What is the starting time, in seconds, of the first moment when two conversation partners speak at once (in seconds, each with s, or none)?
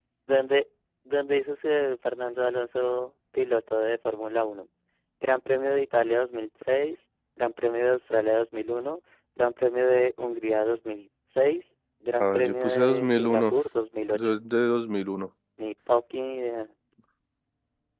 12.2 s